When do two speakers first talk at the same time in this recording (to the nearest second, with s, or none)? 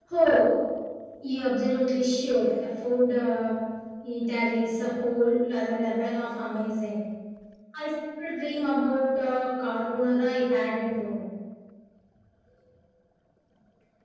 none